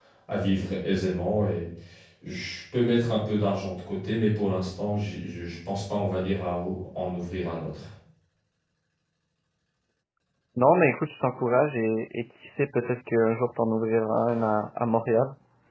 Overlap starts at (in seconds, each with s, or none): none